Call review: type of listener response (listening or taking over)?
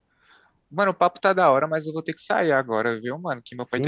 taking over